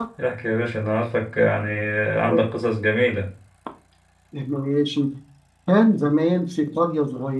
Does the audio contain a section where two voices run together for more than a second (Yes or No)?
No